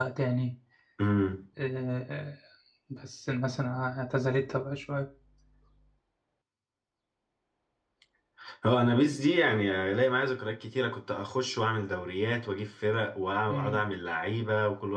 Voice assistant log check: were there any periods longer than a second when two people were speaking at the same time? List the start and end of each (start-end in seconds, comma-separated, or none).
none